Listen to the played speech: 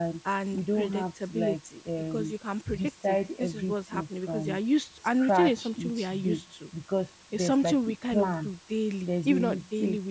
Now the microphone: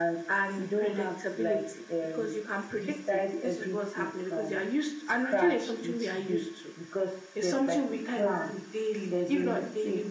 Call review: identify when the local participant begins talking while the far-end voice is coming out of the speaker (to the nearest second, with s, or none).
none